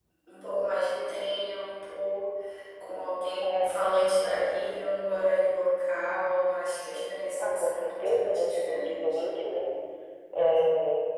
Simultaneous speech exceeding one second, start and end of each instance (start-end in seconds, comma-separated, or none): 7.4-9.2